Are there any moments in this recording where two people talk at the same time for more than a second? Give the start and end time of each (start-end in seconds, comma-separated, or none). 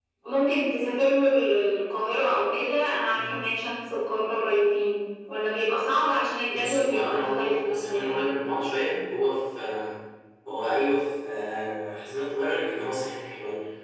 6.5-8.1